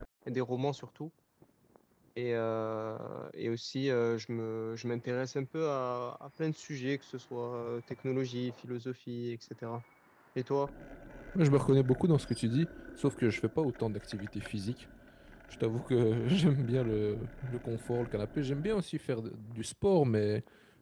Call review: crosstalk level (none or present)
none